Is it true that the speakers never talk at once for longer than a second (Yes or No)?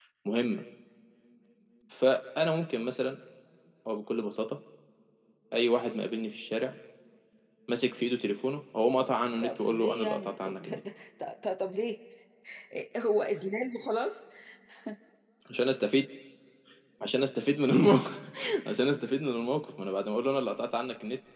No